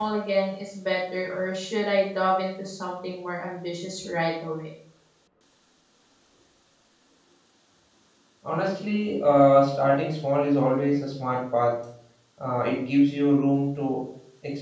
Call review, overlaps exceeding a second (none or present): none